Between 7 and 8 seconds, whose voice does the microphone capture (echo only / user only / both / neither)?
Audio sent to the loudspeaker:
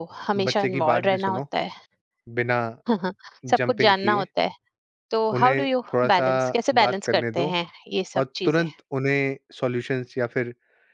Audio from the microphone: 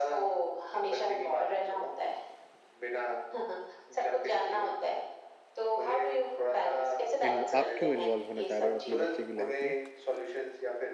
both